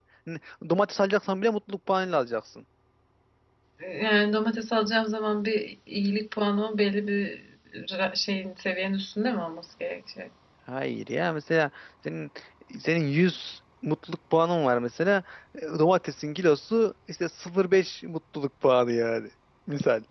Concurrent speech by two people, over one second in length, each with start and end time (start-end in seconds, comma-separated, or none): none